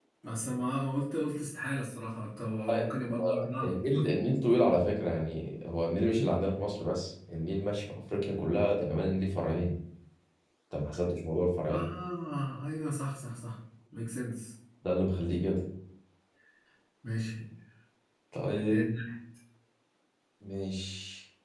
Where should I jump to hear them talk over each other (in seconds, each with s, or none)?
2.7 s